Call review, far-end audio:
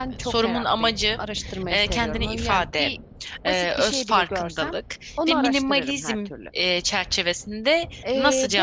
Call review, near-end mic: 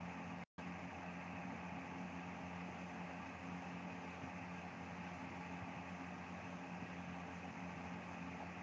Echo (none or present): none